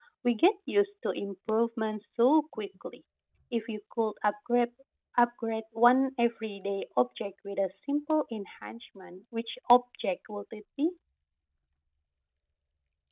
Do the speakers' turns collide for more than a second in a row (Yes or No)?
No